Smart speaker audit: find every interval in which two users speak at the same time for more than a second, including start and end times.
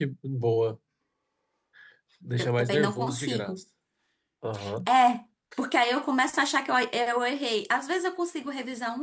2.4-3.6

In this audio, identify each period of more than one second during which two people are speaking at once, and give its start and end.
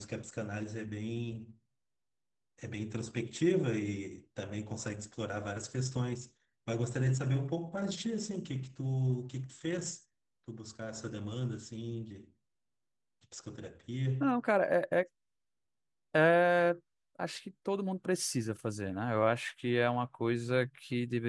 none

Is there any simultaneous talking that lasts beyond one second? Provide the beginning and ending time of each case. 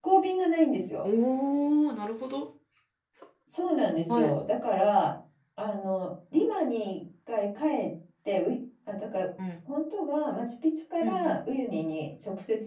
none

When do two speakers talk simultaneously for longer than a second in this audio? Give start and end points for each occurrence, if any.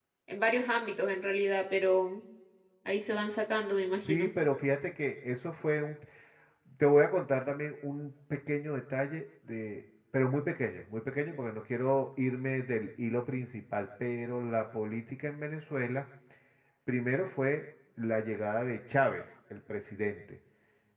none

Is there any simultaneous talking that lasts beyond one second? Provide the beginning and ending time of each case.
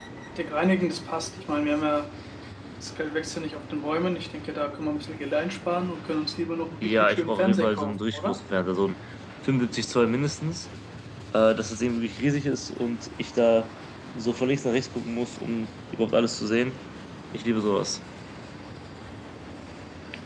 6.8-8.3

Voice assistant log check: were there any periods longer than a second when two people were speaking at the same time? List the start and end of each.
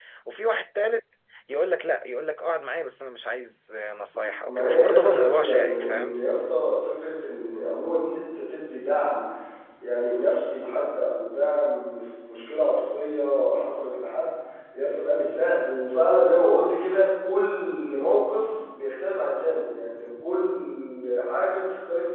4.5-6.2

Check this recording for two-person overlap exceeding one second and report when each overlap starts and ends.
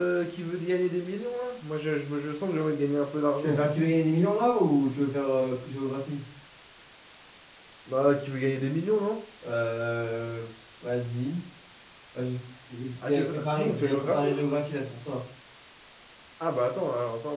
13.1-14.4

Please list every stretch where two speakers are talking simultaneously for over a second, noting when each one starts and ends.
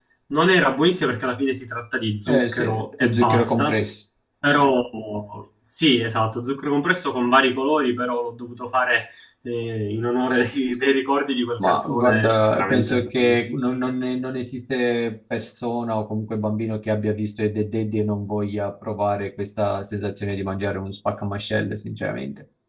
2.3-3.8, 11.6-13.4

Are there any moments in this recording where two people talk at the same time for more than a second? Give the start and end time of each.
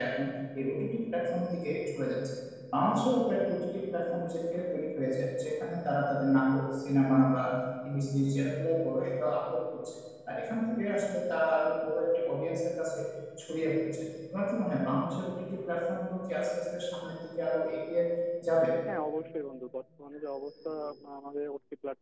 none

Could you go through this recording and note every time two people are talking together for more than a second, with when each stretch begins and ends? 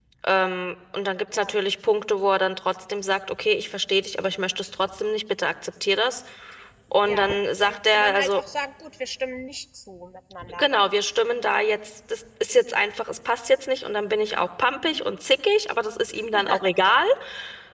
7.0-8.4

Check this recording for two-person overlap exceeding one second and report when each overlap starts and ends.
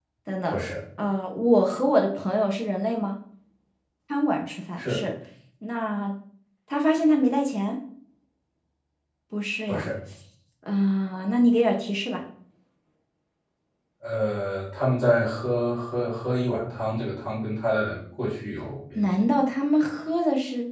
none

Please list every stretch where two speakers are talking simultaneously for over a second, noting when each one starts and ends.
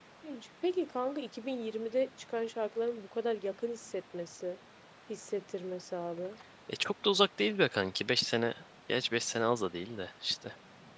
none

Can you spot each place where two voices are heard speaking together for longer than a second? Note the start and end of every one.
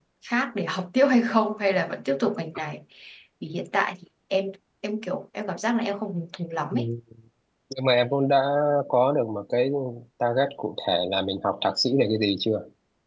none

